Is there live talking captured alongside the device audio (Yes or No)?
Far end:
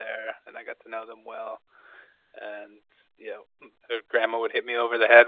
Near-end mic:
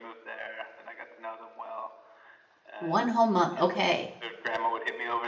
Yes